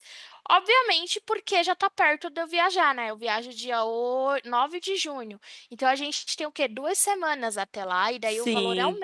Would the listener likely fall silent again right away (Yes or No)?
No